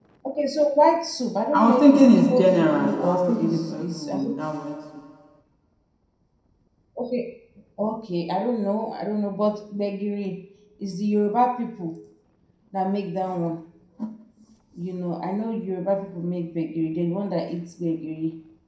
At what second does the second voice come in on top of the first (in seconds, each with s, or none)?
1.5 s